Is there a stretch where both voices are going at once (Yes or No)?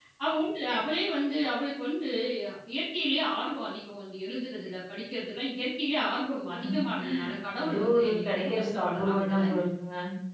Yes